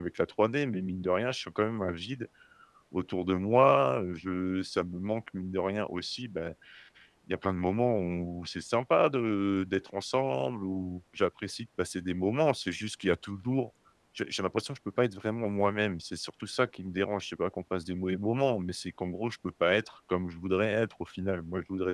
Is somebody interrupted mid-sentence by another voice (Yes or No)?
No